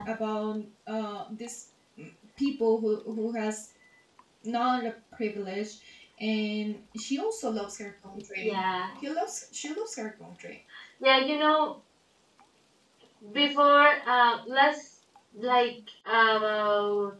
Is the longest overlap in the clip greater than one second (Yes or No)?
No